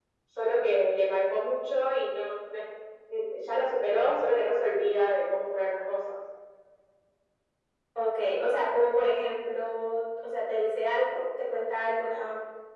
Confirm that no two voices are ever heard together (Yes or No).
Yes